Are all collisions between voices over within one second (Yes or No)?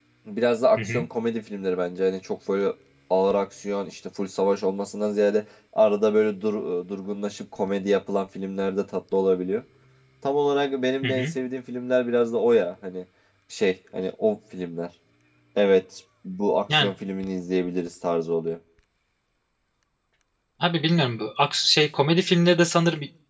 Yes